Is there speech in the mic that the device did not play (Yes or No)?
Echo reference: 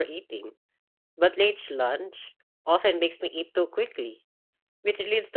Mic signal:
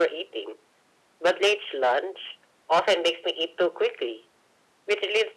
No